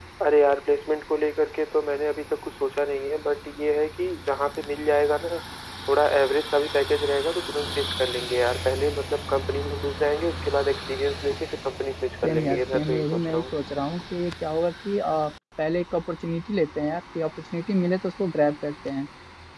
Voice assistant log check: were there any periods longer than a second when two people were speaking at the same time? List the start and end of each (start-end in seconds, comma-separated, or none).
12.2-13.4